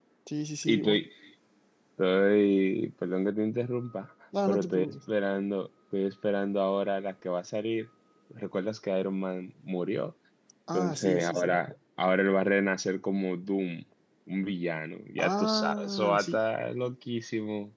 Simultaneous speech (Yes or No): Yes